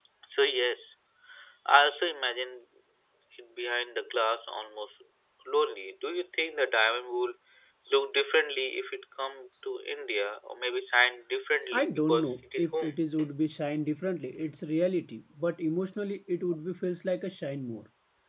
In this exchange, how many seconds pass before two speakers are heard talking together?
11.7 s

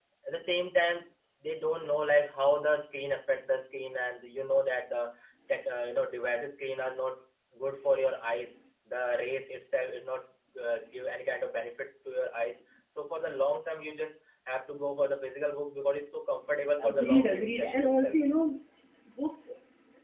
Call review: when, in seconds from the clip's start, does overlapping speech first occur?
16.8 s

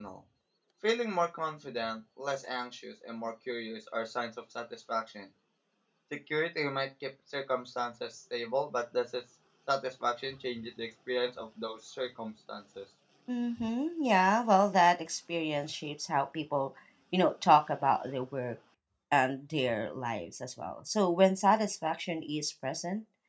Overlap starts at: none

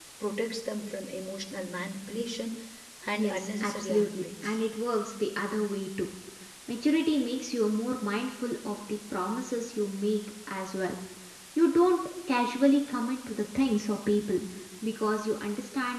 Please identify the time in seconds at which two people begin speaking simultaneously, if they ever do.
3.2 s

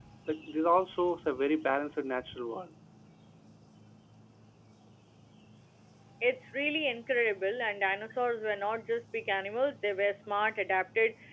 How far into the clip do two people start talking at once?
none

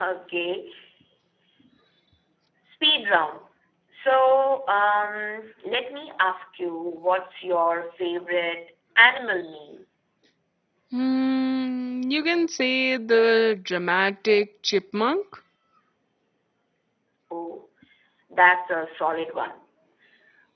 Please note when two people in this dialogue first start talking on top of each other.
none

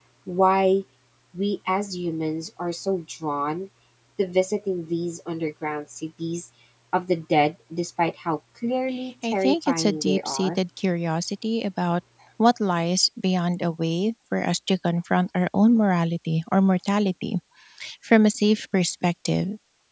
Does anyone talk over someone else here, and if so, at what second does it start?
9.2 s

